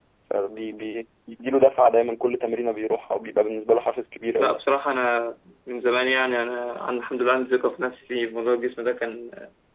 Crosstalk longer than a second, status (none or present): none